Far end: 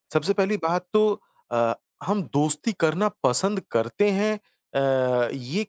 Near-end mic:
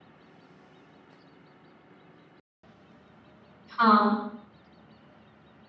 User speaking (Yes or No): Yes